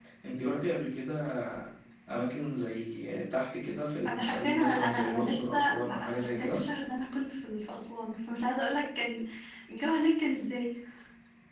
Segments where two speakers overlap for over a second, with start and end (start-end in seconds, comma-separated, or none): 4.0-6.7